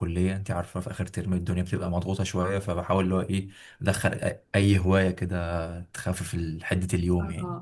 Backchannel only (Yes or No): No